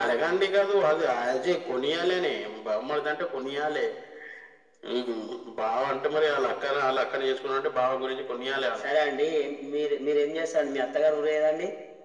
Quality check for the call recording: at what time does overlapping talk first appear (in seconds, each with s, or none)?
none